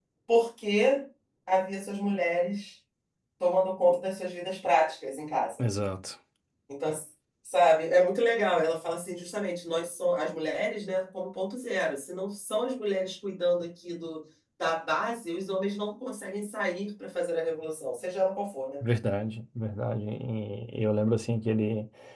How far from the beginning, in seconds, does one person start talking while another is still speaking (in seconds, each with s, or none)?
none